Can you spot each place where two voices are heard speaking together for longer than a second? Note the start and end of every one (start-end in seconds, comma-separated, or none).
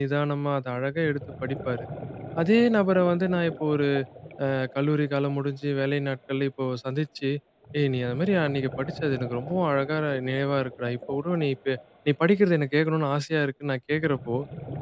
none